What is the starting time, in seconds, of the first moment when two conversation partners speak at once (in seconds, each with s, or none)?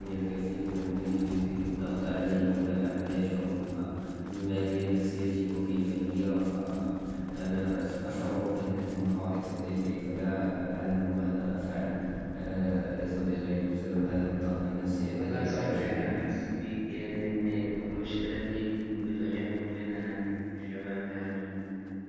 15.1 s